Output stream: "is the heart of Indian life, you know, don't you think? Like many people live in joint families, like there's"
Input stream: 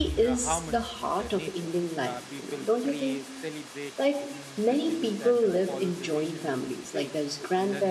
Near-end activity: present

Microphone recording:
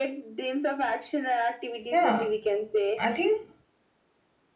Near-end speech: present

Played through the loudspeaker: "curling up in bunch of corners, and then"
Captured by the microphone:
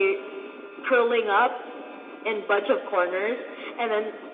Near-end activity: none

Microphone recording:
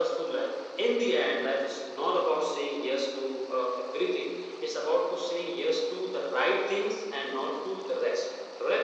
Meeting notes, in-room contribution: none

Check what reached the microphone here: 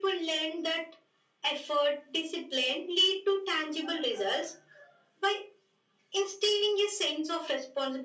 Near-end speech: none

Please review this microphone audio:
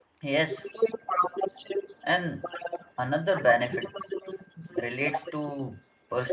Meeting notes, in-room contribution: present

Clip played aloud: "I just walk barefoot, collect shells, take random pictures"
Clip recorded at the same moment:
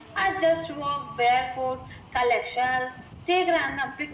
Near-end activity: none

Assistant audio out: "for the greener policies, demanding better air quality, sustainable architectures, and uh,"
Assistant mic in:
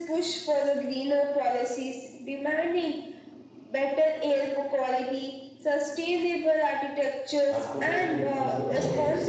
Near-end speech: present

